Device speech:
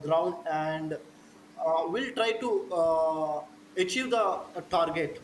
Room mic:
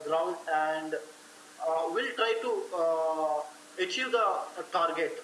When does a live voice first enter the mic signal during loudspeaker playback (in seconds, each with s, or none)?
none